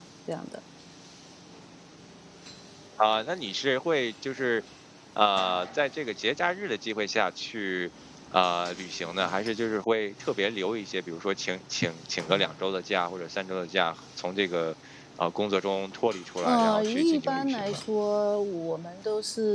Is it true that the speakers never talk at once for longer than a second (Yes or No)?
No